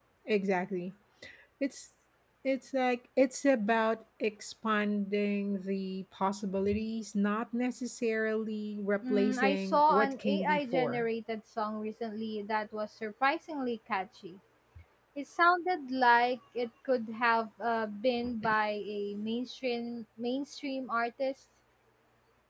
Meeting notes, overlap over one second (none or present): present